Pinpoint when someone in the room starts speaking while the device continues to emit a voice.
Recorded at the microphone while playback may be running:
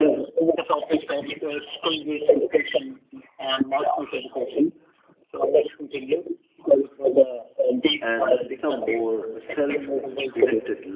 8 s

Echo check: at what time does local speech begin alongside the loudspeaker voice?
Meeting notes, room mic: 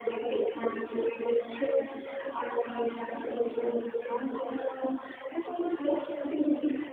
none

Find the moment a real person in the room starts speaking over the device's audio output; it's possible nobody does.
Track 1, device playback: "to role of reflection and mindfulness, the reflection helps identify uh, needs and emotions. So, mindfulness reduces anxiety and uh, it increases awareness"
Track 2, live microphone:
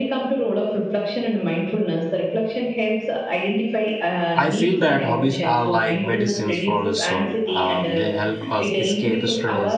4 s

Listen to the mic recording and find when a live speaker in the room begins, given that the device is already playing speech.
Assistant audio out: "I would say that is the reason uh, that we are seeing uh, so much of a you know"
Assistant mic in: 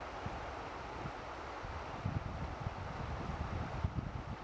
none

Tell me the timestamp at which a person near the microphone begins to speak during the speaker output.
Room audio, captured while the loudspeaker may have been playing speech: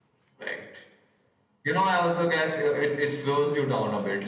none

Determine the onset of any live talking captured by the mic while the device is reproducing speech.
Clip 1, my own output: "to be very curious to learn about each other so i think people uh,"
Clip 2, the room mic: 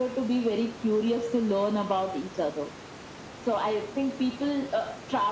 none

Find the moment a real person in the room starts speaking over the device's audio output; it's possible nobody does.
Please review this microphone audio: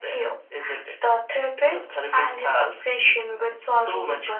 none

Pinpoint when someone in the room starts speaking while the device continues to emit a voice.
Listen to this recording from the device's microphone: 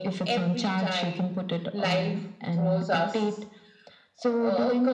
none

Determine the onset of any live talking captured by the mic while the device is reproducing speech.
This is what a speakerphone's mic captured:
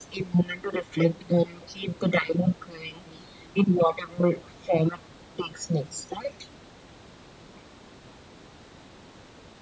none

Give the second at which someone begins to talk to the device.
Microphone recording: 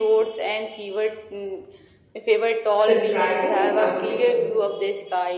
3 s

